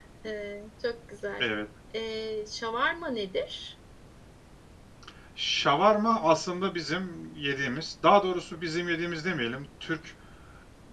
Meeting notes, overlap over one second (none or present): none